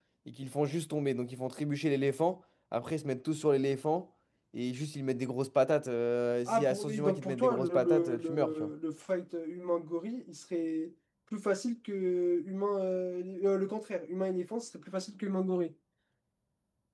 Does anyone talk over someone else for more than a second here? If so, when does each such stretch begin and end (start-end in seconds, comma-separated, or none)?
6.5-8.7